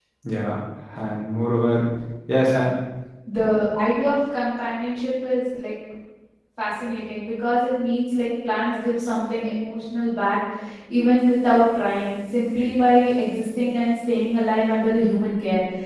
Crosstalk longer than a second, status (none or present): none